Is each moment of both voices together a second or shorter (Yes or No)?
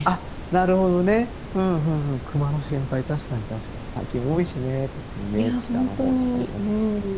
No